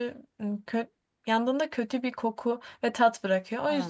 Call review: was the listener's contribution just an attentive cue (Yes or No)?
Yes